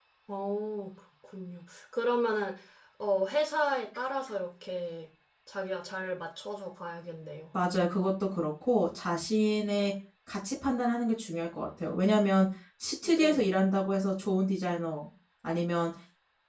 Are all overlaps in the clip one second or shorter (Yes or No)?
Yes